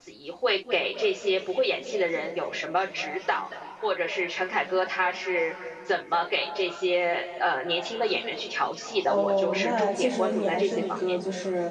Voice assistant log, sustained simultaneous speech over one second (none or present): present